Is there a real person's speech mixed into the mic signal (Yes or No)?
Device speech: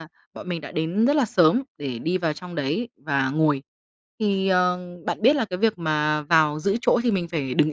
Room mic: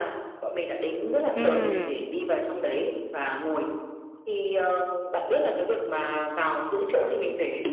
Yes